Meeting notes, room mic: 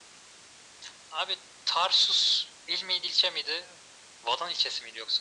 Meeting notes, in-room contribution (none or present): none